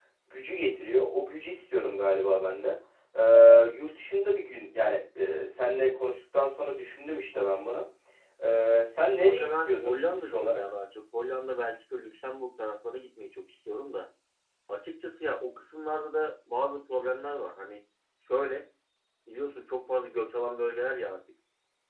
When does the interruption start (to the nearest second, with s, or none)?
9 s